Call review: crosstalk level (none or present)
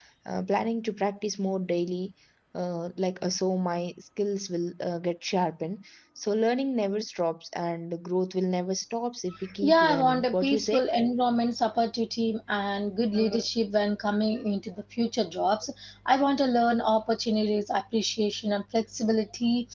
present